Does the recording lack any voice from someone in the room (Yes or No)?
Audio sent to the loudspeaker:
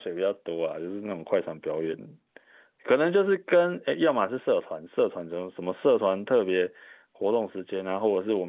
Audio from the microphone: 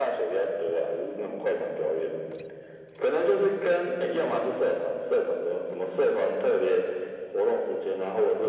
Yes